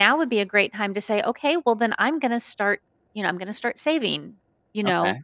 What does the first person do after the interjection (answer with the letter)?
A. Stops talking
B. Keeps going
B